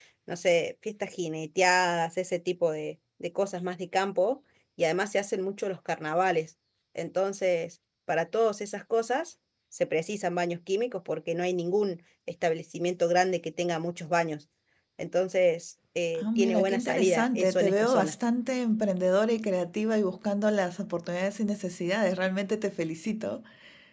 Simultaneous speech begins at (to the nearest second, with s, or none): 16 s